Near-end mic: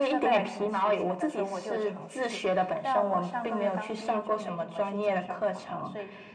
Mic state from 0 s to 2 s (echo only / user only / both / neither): both